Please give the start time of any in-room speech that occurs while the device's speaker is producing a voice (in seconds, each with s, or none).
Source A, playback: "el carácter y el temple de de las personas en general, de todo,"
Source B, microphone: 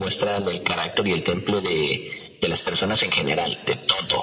none